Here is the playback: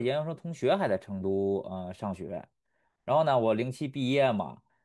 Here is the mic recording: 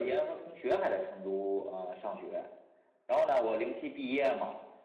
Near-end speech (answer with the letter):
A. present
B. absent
B